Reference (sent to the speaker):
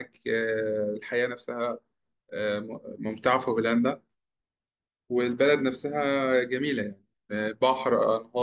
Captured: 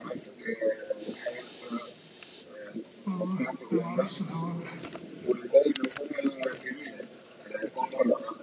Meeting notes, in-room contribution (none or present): present